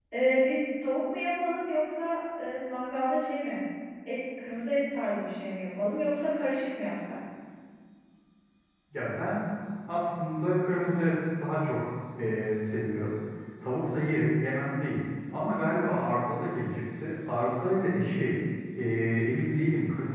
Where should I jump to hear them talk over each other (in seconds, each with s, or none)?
none